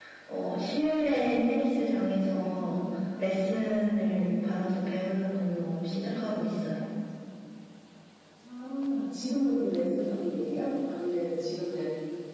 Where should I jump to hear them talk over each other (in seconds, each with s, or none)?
none